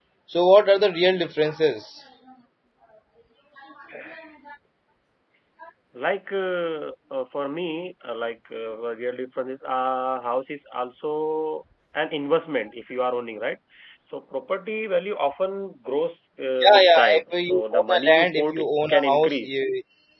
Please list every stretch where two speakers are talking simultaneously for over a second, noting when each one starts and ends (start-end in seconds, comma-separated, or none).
16.6-19.5